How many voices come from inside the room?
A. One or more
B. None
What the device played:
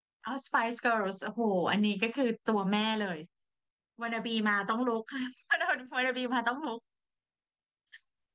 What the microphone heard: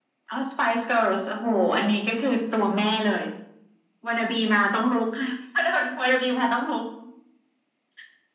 B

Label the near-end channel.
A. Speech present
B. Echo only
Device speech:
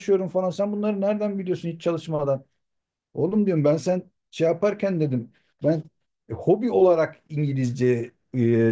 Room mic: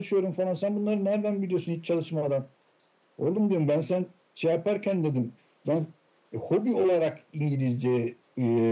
B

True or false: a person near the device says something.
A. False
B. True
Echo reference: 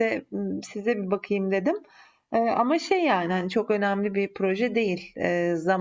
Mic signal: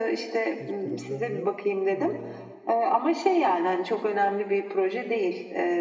B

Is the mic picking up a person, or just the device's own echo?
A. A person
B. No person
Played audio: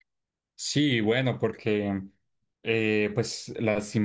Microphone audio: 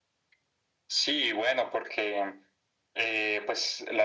B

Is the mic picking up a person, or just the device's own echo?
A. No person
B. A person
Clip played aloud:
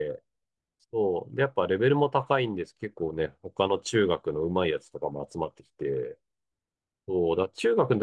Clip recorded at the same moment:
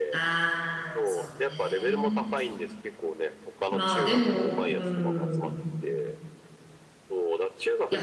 B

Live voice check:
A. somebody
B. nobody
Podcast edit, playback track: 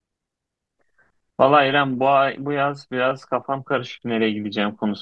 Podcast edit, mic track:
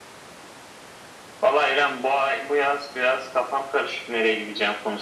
B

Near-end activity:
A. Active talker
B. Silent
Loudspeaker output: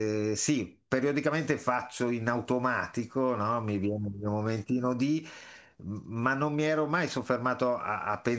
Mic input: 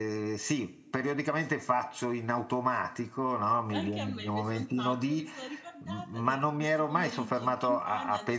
A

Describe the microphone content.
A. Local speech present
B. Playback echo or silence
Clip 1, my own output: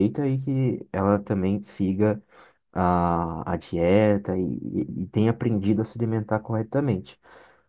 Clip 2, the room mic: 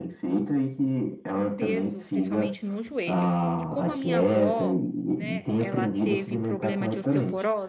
A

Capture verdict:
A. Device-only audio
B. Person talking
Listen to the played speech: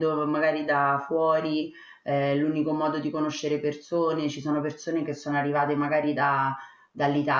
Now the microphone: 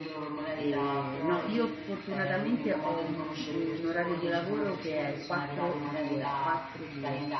B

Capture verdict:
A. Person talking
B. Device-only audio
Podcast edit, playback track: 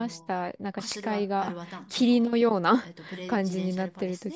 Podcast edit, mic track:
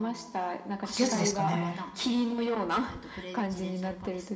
A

